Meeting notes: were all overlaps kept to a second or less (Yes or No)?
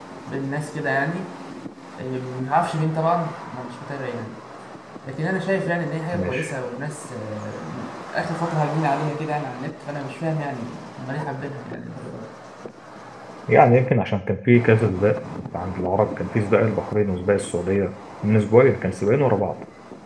Yes